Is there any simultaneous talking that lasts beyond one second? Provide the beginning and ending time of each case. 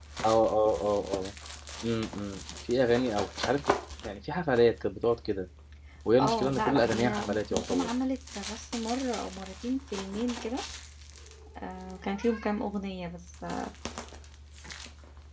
6.2-7.9

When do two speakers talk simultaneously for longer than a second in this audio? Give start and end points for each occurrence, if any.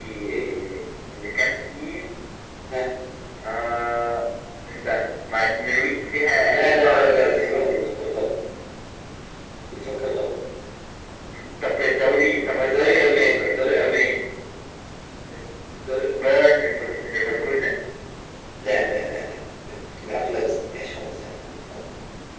6.4-7.9, 12.6-14.1

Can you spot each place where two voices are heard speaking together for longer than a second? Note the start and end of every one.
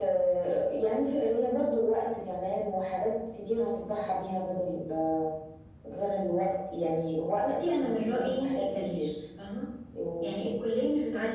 7.4-9.1

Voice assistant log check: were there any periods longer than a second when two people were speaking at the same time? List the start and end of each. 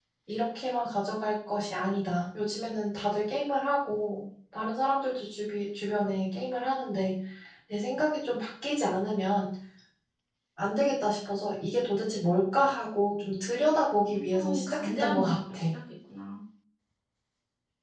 14.1-15.6

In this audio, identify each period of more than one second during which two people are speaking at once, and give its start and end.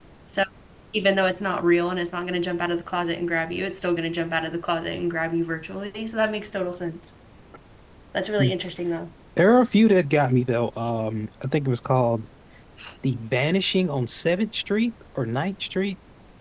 none

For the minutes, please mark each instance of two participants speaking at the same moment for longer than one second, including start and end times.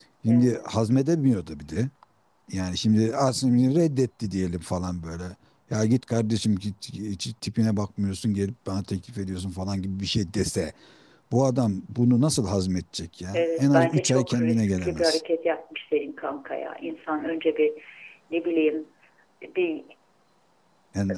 13.3-15.2

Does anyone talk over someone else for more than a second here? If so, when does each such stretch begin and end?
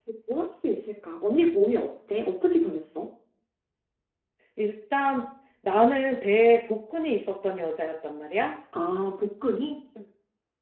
none

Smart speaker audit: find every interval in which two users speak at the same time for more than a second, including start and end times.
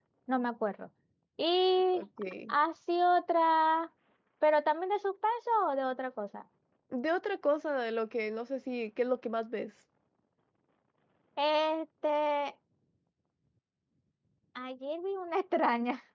none

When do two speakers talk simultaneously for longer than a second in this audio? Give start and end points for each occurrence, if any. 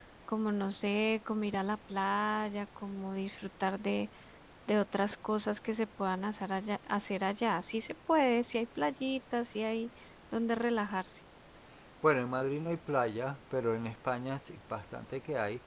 none

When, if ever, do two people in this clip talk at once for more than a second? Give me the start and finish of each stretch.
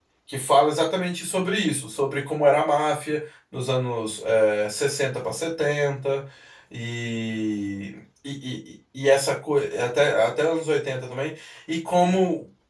none

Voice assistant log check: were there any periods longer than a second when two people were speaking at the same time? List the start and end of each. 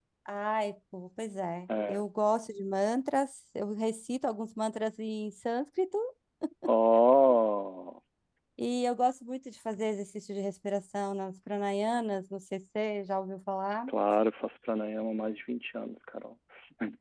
none

